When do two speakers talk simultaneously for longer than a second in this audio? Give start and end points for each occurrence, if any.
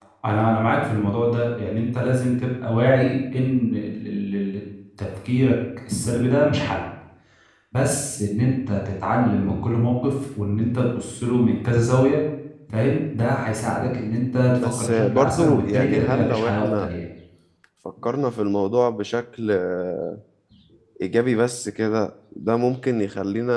14.6-16.9

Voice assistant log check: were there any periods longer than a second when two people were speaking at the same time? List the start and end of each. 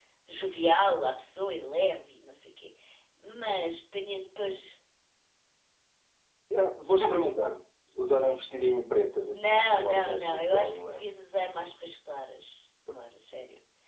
9.3-11.0

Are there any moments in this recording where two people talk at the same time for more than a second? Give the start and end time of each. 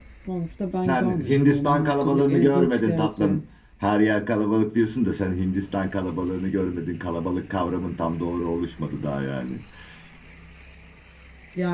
0.8-3.4

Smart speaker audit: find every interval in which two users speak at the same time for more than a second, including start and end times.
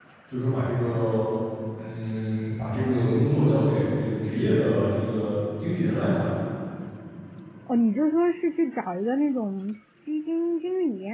none

